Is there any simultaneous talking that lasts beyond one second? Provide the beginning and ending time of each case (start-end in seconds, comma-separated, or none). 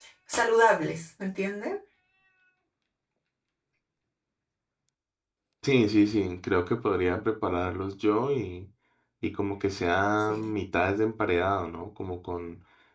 none